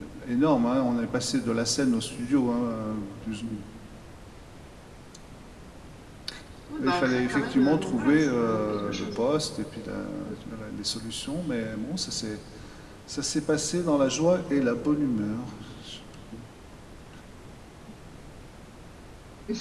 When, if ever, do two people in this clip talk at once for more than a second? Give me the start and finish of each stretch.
6.8-9.2

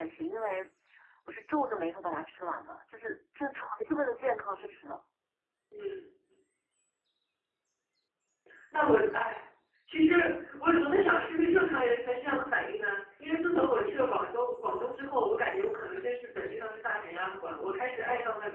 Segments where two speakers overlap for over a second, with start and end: none

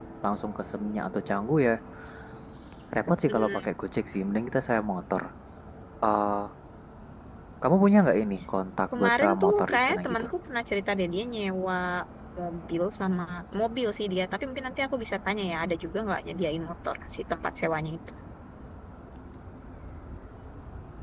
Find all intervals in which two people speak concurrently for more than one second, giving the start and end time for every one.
9.0-10.3

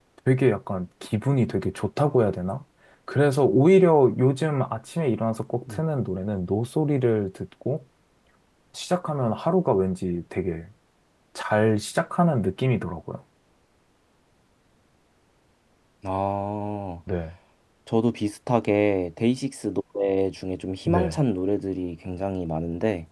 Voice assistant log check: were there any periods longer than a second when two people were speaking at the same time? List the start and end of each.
none

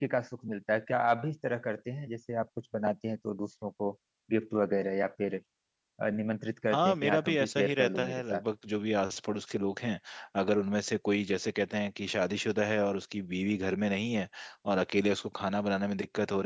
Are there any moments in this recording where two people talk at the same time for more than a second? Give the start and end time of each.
6.7-8.4

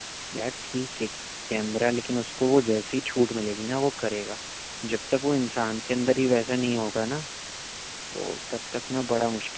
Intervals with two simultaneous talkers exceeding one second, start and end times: none

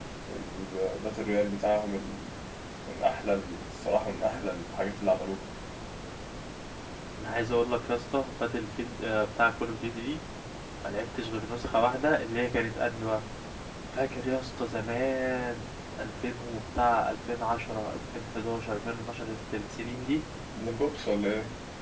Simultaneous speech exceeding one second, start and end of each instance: none

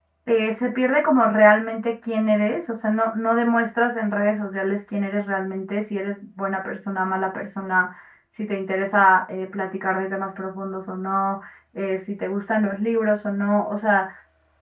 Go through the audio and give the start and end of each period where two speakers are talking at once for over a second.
none

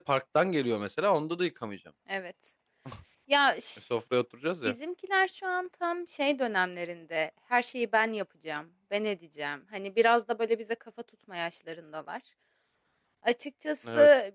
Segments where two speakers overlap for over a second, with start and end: none

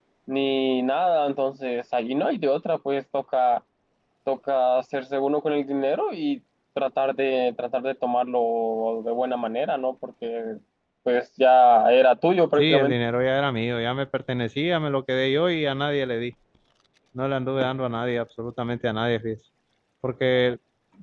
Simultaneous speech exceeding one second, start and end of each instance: none

